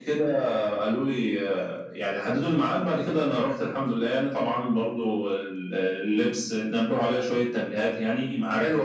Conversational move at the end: taking over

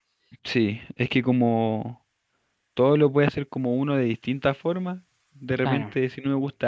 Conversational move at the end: listening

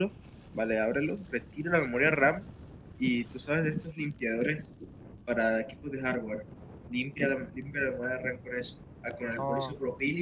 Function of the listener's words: listening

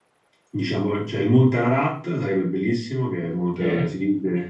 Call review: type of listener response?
listening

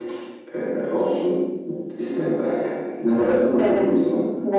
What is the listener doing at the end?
taking over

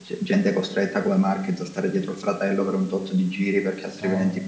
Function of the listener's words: listening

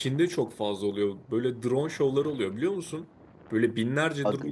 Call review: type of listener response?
listening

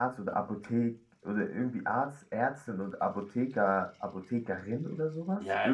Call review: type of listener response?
taking over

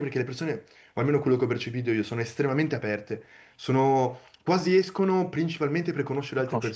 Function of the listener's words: taking over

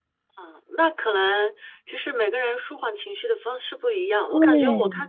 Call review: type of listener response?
listening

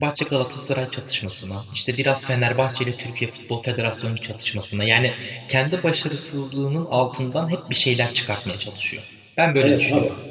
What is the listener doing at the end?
taking over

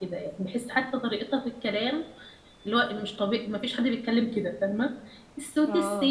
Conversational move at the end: listening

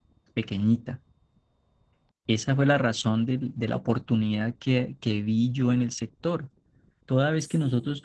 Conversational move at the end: listening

